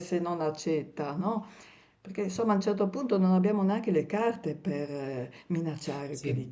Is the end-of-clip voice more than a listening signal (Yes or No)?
Yes